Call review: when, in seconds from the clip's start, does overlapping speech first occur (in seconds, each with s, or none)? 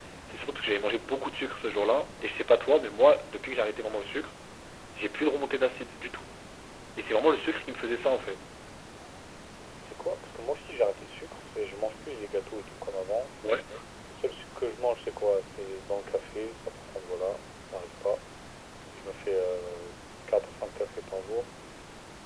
none